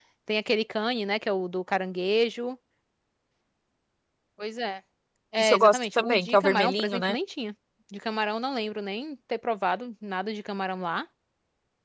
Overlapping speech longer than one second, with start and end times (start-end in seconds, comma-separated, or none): 5.4-7.2